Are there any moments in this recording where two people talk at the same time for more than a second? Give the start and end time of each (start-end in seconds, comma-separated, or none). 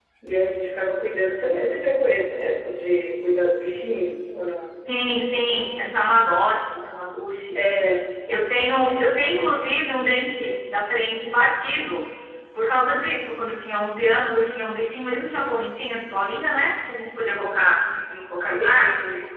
none